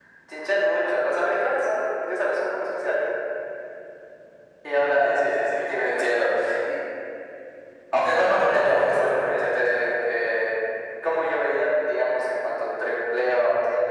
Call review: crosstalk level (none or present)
present